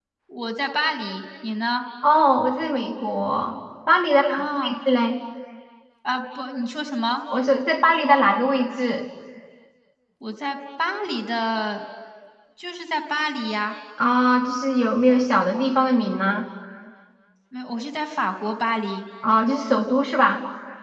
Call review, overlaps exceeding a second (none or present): none